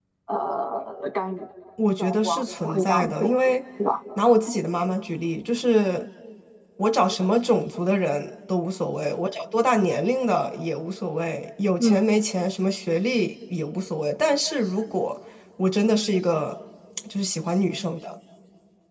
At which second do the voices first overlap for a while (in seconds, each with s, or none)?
2.0 s